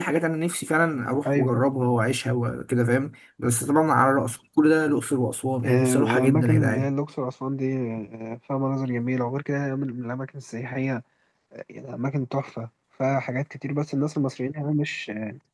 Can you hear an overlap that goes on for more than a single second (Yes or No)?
Yes